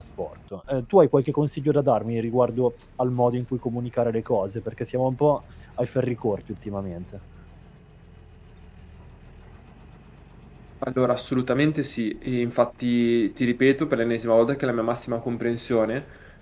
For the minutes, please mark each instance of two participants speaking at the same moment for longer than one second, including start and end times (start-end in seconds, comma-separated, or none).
none